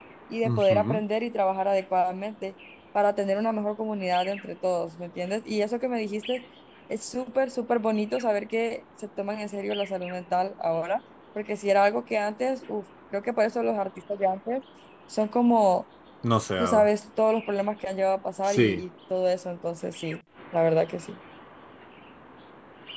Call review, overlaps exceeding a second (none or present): none